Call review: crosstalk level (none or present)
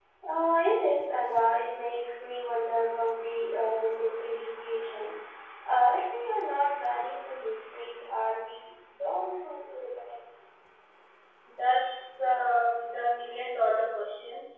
none